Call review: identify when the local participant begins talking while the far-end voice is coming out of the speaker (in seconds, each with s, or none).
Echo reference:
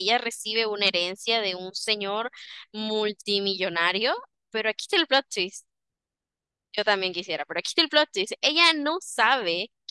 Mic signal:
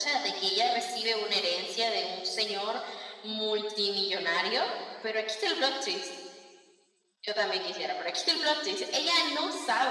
none